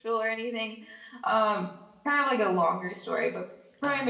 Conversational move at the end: listening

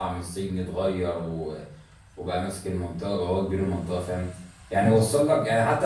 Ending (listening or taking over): listening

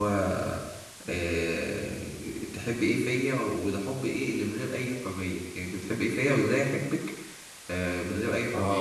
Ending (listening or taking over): taking over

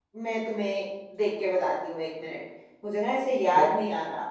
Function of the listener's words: listening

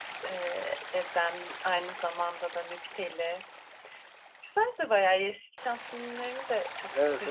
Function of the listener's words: taking over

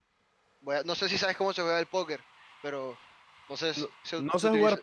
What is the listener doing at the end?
taking over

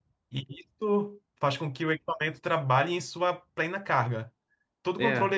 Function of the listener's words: listening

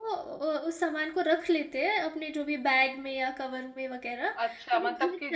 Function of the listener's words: taking over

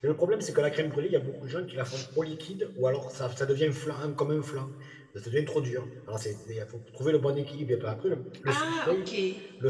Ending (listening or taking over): listening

